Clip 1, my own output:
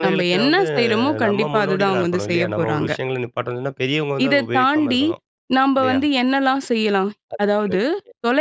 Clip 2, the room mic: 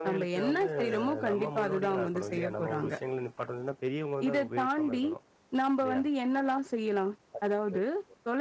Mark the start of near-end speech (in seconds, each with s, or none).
none